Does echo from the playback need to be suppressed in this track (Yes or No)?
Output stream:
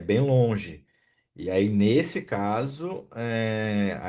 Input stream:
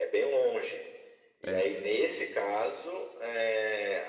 Yes